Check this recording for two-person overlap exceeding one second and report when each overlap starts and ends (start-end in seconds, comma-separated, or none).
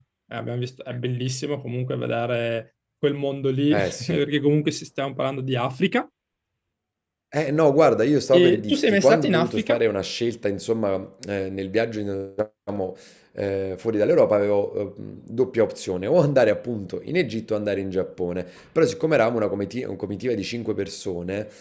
8.4-9.8